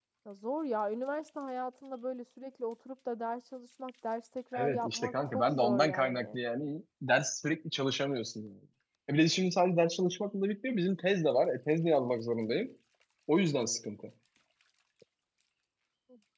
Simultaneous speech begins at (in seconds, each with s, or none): 4.5 s